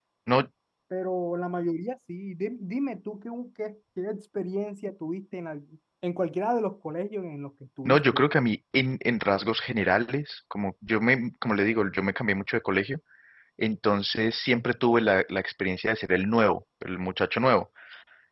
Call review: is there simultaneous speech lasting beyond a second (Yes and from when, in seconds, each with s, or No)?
No